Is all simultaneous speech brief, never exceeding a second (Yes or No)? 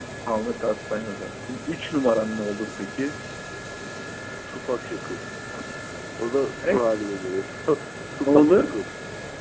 Yes